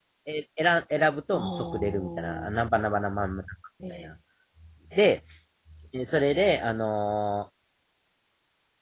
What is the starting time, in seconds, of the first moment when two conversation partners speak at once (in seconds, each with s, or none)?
1.3 s